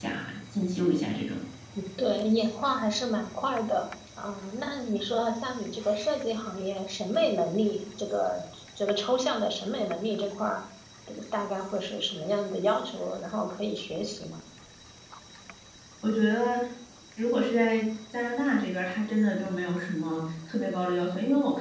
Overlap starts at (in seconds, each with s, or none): none